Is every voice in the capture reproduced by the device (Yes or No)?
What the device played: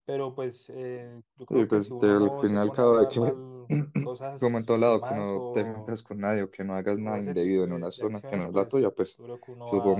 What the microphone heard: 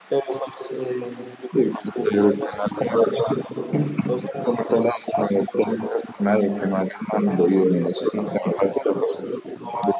Yes